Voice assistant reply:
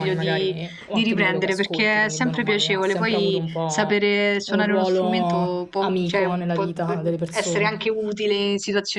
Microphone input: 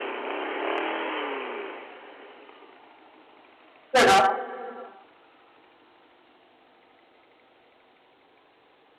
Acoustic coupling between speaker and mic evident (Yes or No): No